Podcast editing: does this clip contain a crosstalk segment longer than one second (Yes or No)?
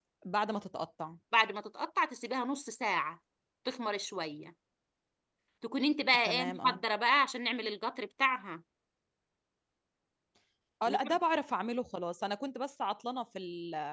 No